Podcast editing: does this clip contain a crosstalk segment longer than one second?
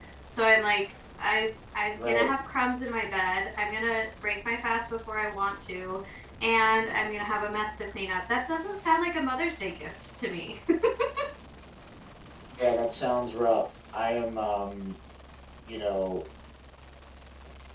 No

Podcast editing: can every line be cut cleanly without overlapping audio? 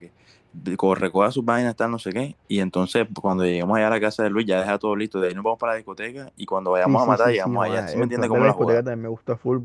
No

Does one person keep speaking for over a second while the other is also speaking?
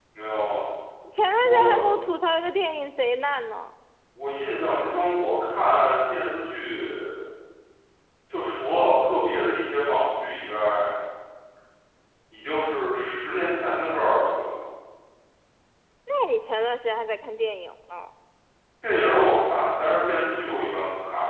No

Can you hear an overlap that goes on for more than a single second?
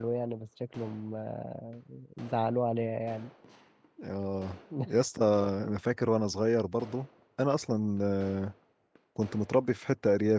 No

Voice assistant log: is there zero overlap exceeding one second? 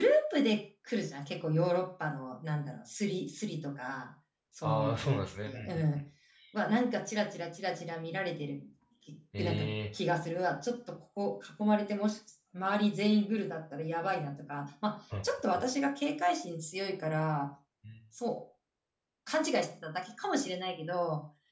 No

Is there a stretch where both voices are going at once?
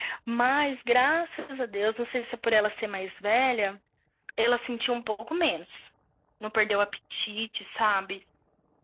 No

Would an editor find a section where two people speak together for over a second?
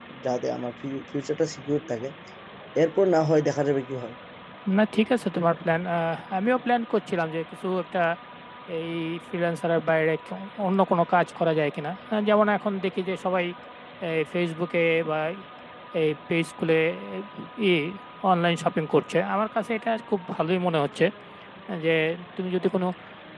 No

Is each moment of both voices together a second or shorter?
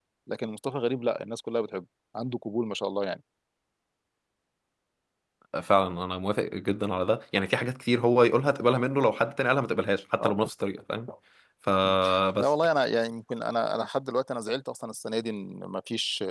Yes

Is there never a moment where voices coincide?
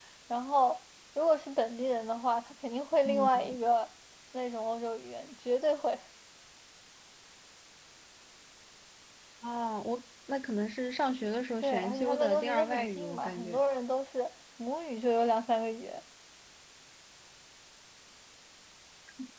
No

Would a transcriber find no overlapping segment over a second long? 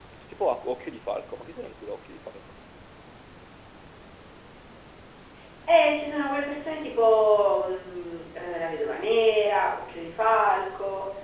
Yes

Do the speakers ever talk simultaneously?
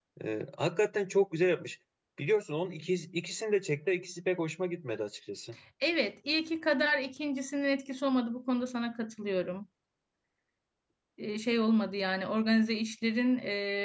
No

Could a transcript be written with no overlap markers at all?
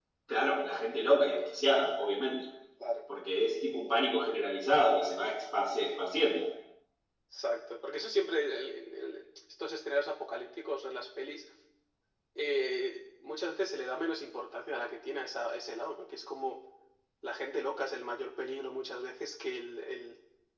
Yes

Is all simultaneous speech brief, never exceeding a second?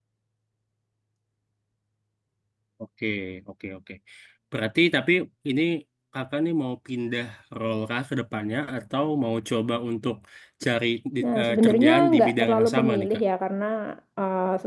No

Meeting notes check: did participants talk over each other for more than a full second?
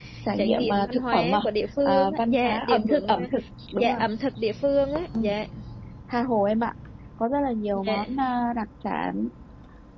Yes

